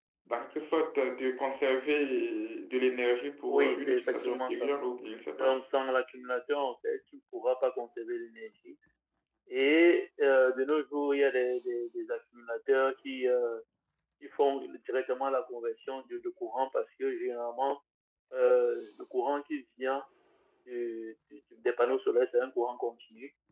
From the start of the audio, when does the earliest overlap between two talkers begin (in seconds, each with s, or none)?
3.5 s